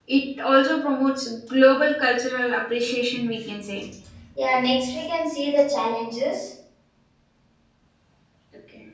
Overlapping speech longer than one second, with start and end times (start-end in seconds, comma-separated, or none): none